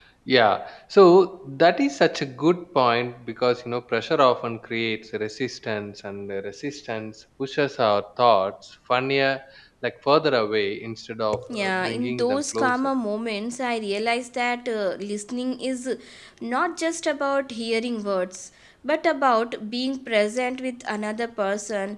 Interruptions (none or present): present